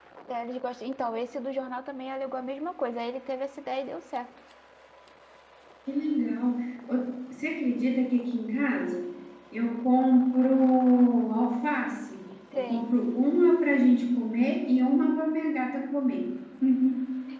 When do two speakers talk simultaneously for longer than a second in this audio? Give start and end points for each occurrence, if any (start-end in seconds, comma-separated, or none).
none